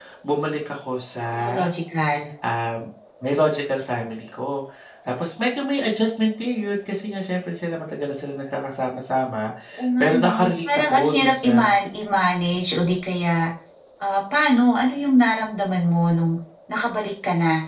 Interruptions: present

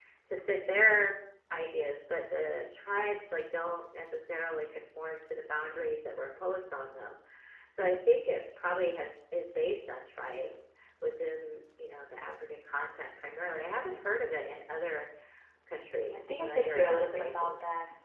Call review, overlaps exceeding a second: present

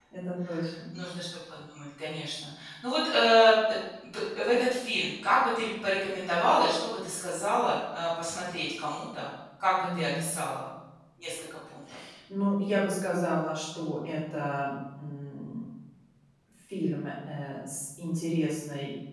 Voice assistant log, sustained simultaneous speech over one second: none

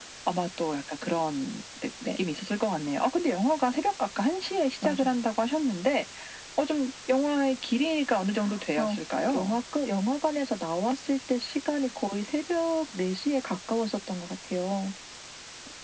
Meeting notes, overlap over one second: none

